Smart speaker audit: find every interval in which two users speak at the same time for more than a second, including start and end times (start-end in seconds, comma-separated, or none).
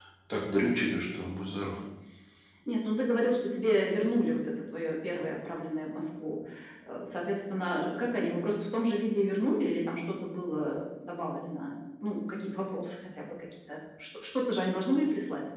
none